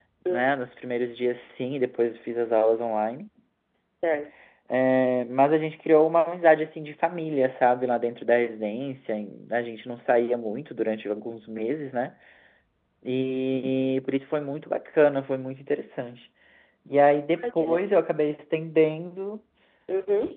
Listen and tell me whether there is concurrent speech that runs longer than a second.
No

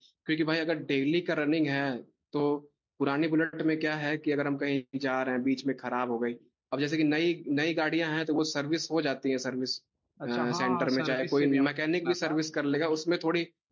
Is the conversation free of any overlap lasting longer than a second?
No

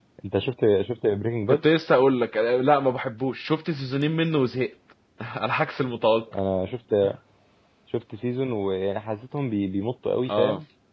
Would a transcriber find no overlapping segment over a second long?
Yes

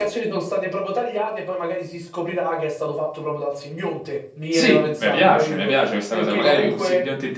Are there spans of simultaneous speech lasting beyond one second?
Yes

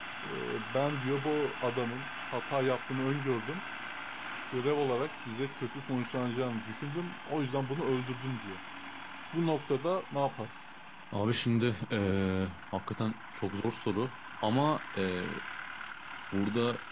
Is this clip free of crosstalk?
Yes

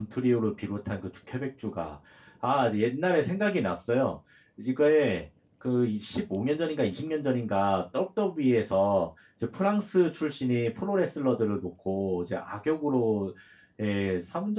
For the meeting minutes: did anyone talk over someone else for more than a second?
No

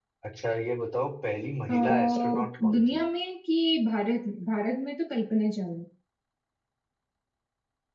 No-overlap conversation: No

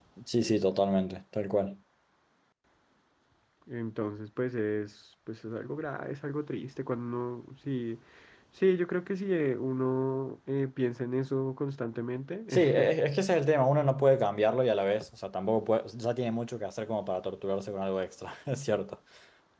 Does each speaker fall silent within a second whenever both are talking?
Yes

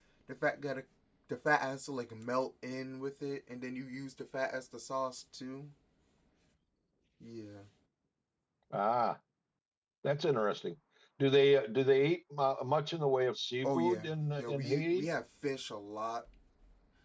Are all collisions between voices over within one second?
No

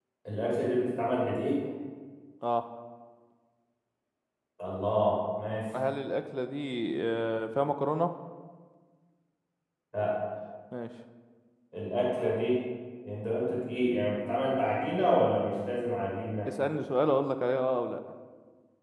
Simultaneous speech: No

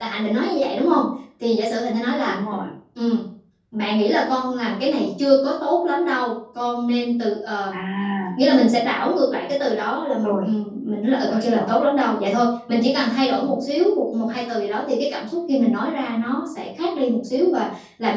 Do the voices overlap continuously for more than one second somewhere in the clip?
No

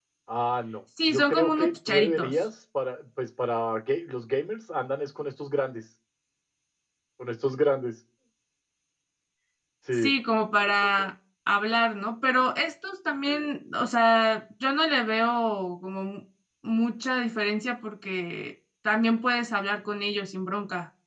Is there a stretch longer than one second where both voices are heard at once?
Yes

